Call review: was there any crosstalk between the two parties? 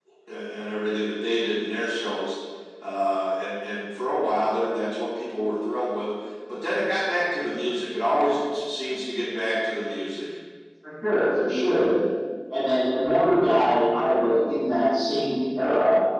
No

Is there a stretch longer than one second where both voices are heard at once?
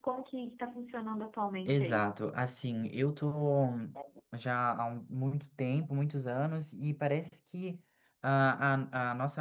No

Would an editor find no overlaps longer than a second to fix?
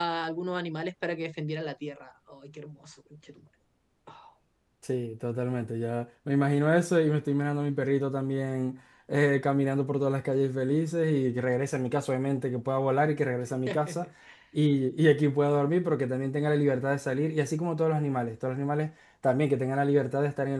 Yes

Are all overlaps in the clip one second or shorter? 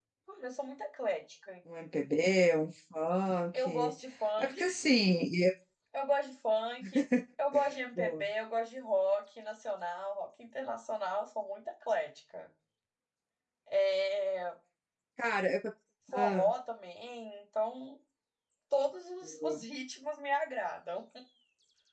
Yes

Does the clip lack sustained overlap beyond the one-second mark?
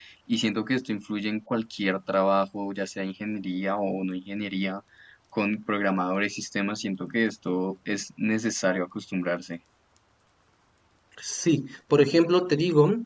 Yes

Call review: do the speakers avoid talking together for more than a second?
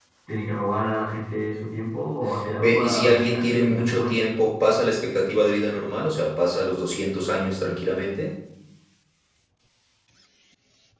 No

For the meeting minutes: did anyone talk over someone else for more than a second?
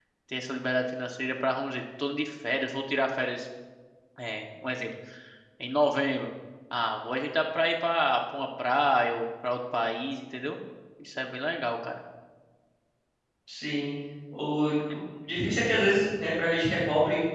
No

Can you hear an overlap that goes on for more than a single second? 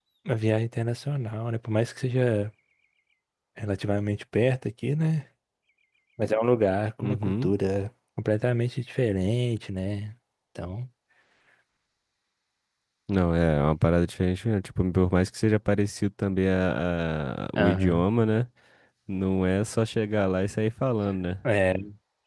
No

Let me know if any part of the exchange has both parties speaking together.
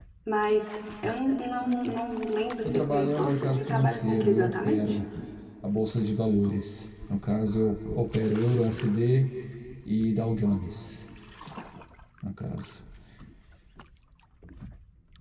Yes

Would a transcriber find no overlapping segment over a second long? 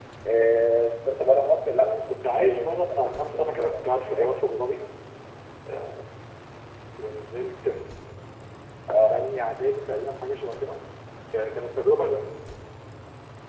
No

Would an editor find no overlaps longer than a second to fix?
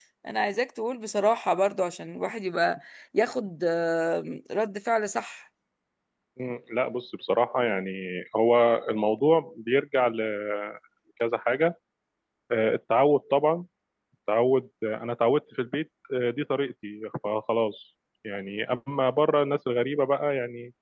Yes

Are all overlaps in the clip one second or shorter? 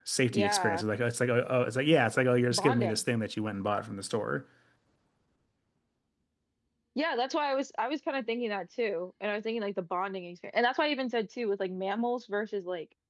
Yes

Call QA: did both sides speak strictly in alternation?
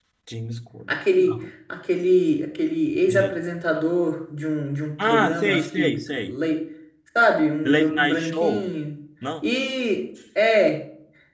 No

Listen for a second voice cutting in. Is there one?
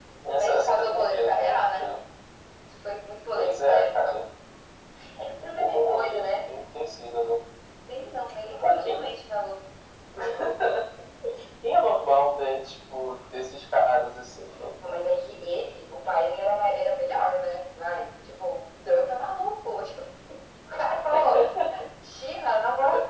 Yes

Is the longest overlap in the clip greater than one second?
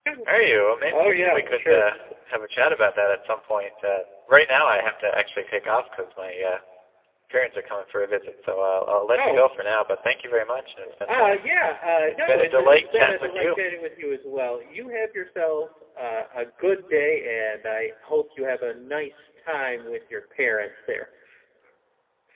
Yes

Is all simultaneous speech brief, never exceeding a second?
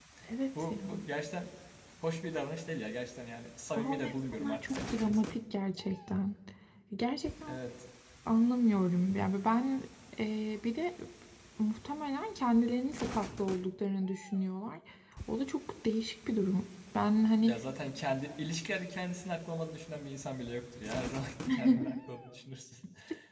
No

